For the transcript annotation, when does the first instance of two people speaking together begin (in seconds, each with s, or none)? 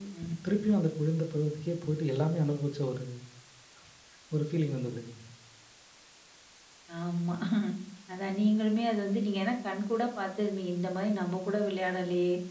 none